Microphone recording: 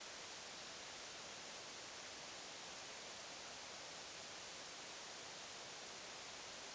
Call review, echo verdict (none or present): none